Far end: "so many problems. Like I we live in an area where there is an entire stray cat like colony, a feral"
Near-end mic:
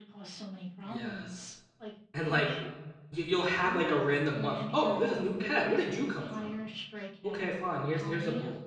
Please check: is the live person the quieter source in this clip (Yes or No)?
No